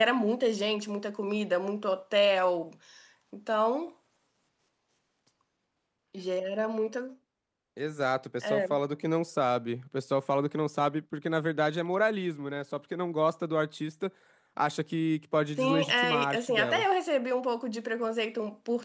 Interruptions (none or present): present